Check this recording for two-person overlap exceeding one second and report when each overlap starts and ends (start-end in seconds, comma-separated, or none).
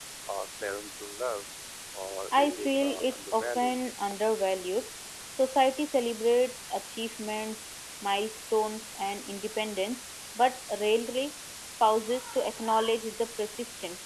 2.3-4.0